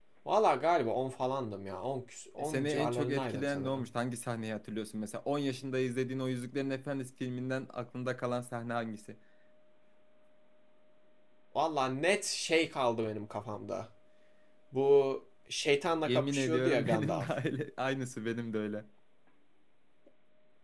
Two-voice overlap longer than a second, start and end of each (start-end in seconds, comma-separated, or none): 2.4-3.9, 16.0-17.3